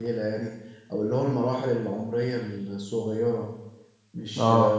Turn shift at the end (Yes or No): Yes